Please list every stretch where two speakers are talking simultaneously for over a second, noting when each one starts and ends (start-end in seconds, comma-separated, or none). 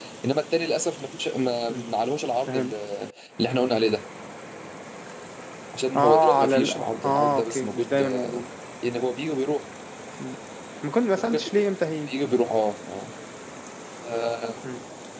6.0-8.4